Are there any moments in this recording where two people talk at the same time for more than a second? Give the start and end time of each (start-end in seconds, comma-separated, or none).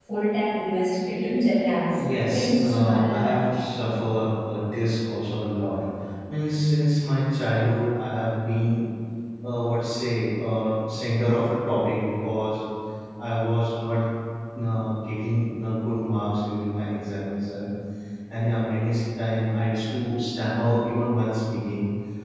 1.9-3.4